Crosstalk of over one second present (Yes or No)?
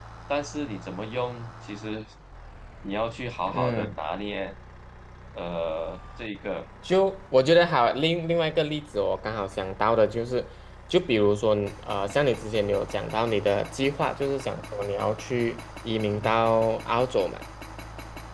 No